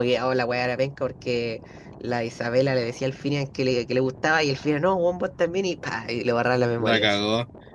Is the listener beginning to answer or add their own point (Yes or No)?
Yes